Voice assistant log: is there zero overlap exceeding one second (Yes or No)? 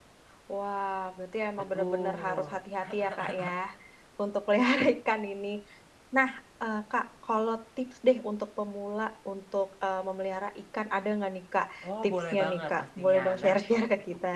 No